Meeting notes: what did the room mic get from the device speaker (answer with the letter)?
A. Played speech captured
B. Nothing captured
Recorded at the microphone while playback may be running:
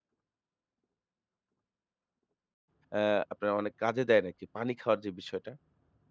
B